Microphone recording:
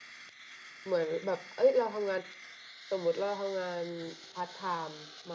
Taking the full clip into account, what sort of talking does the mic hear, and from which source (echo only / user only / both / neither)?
user only